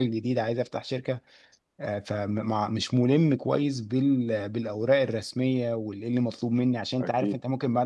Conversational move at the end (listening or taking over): listening